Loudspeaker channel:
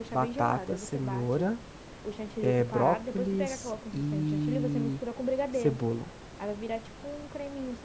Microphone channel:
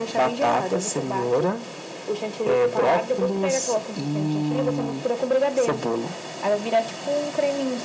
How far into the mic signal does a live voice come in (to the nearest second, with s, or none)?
none